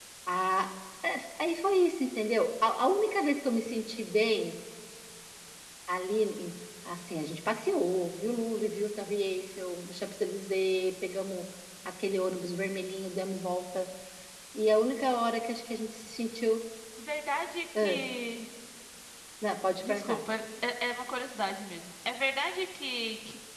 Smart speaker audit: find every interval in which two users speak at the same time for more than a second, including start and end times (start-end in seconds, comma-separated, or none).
none